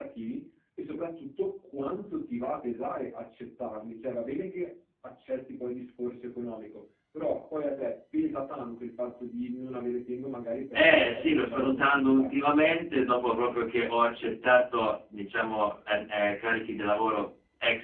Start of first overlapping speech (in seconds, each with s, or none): 10.7 s